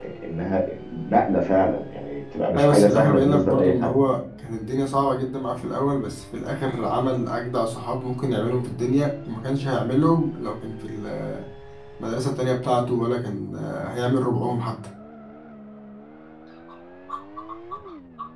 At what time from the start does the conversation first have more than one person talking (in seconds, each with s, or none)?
2.5 s